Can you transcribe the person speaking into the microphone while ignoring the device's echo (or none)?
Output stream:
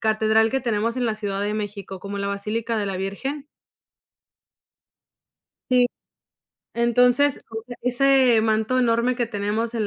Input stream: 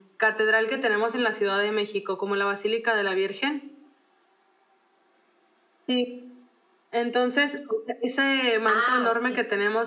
Ah, okey,